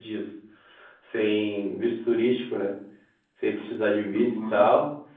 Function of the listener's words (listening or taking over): listening